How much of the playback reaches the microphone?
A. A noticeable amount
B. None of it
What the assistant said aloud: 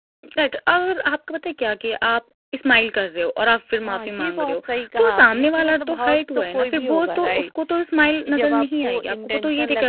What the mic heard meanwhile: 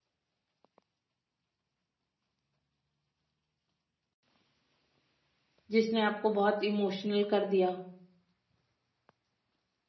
B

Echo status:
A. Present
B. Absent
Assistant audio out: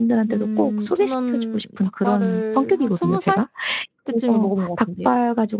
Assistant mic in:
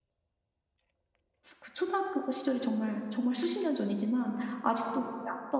B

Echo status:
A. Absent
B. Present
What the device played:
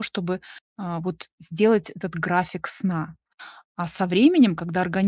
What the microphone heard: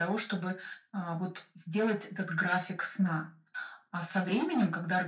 B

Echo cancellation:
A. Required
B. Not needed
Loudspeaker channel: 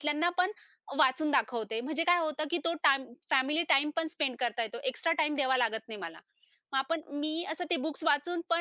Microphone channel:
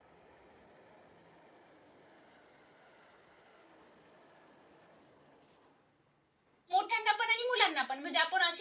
B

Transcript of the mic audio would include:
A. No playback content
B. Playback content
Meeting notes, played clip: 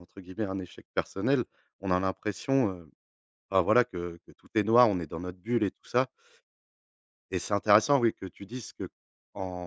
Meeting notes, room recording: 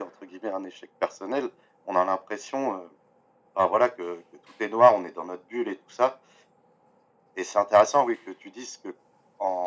B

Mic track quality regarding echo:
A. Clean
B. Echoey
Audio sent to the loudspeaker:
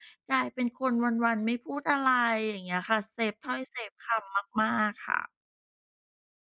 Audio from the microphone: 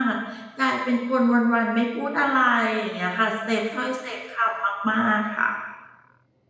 B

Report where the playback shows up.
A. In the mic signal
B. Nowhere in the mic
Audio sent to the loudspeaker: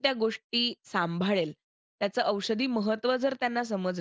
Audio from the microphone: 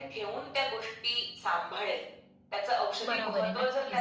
A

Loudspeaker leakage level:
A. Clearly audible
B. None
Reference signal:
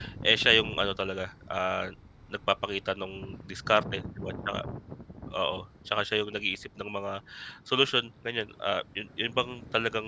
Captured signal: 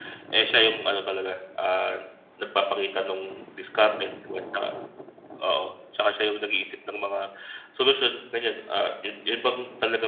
A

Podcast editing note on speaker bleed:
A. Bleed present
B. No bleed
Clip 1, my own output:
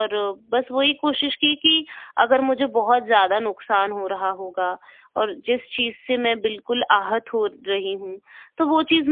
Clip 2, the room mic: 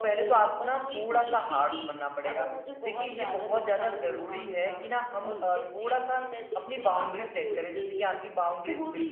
A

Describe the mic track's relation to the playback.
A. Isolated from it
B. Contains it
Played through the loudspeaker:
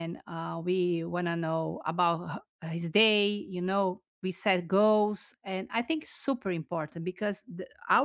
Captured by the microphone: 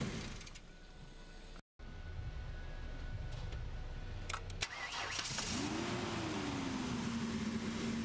A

